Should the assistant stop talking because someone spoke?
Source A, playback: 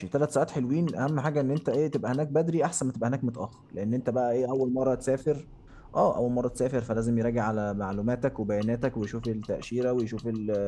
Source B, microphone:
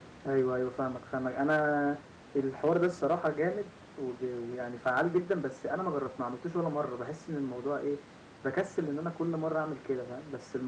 Yes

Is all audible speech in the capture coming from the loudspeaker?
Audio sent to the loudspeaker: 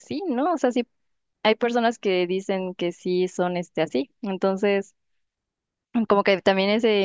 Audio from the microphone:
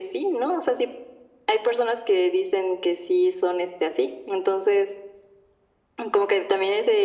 Yes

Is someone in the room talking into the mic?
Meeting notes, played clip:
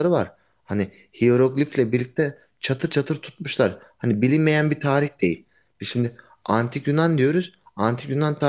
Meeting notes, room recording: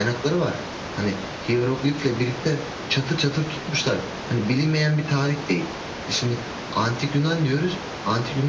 No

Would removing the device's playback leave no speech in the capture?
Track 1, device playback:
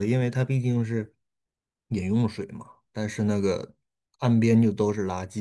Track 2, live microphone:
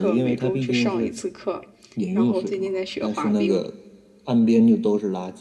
No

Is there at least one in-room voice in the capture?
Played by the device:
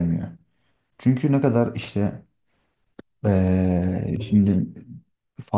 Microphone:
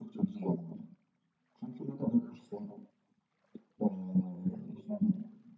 No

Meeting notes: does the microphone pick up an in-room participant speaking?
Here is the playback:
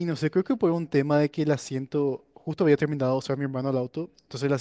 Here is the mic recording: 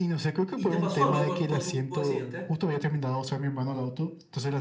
Yes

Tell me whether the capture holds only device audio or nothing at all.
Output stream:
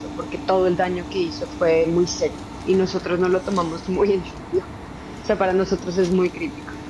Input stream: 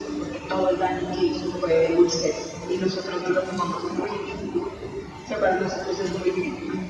Yes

